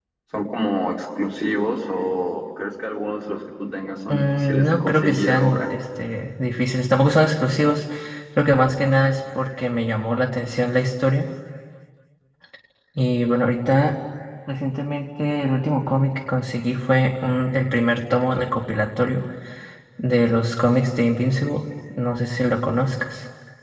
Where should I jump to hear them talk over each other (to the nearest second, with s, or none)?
4 s